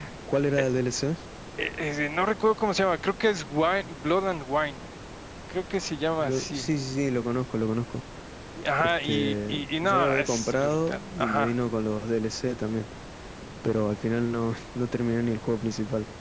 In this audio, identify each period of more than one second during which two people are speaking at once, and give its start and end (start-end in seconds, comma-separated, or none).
8.8-11.5